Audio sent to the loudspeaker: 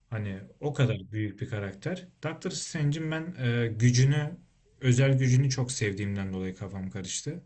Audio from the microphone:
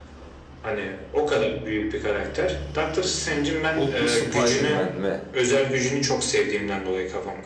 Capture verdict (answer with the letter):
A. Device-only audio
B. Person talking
B